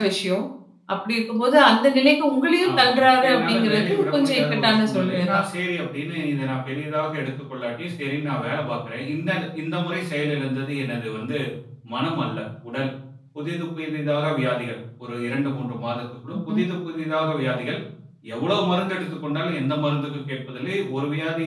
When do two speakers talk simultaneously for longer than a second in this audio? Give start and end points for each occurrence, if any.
3.3-5.3

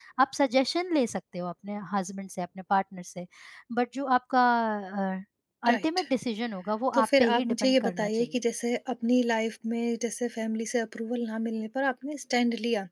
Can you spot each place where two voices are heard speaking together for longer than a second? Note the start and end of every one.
6.9-8.4

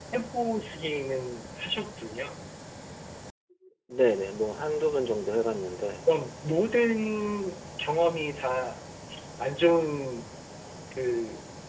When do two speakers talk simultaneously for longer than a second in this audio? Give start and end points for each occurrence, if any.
none

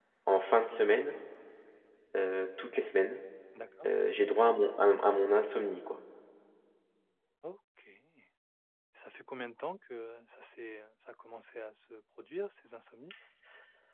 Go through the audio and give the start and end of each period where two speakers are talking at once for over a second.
none

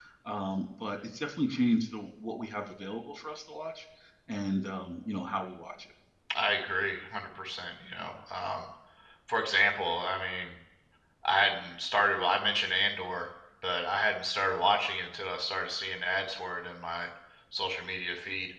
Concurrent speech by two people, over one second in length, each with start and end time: none

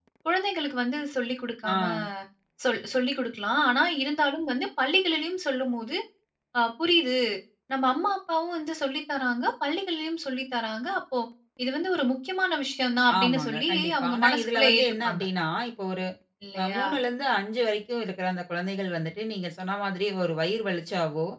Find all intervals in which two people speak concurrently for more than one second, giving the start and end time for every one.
13.2-15.2

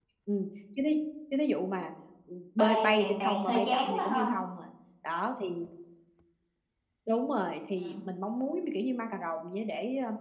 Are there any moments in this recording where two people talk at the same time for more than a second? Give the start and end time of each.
2.6-4.3

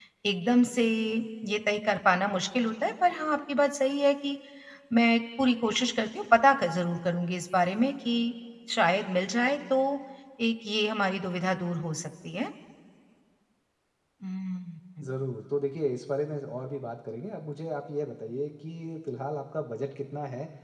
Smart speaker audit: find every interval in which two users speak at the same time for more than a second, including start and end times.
none

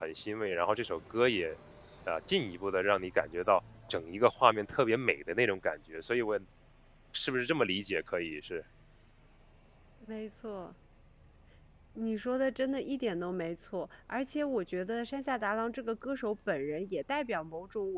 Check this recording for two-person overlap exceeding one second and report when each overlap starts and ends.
none

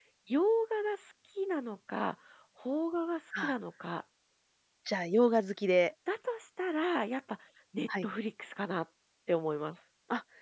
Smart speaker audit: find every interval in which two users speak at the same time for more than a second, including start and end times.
none

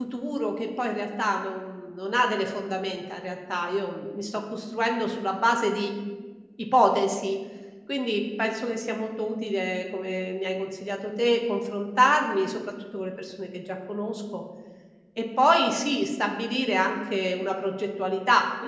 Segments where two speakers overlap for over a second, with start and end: none

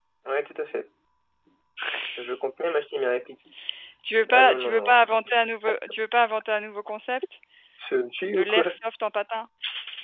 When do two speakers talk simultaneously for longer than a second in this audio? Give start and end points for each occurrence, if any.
4.3-5.8

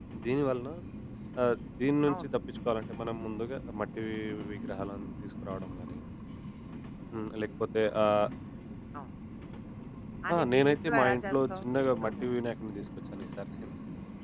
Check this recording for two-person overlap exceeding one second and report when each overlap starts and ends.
10.4-12.3

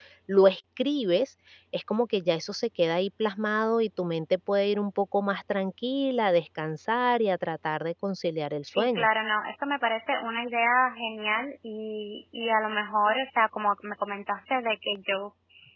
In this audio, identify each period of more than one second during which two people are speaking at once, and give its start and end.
none

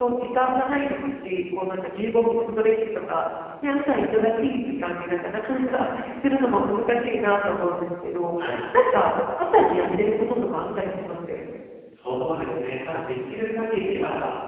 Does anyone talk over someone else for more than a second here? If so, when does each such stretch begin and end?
none

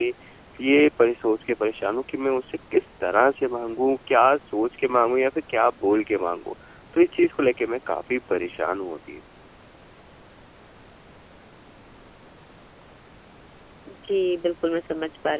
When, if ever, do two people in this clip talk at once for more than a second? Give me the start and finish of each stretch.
none

